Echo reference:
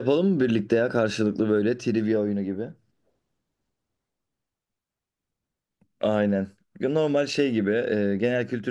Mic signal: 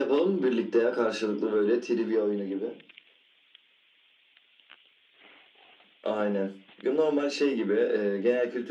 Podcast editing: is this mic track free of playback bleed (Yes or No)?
No